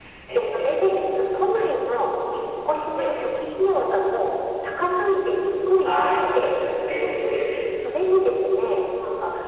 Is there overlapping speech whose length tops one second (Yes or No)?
No